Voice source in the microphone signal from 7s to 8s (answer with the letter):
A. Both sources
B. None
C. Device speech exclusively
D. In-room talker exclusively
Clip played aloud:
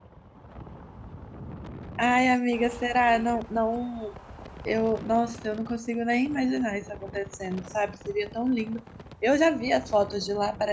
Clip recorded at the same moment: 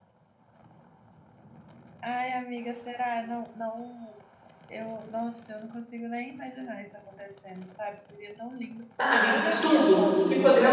C